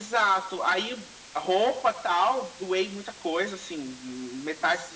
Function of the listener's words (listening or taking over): listening